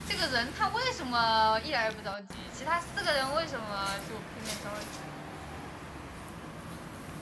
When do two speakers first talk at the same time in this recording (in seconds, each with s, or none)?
none